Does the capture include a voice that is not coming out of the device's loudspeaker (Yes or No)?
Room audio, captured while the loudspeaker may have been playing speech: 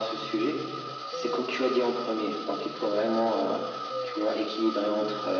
Yes